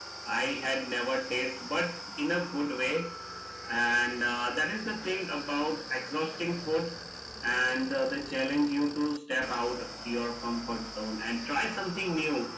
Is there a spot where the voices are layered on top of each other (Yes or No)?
No